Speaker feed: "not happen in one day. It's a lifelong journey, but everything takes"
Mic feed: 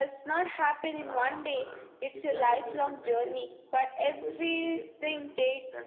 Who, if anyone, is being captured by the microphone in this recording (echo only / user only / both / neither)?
both